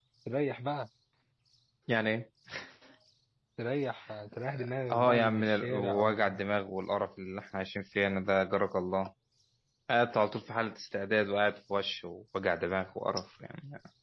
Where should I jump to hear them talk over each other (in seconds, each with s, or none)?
4.9 s